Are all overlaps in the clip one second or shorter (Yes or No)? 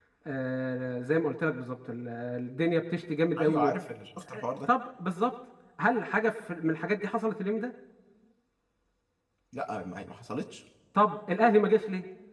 Yes